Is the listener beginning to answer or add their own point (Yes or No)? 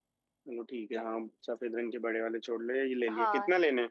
Yes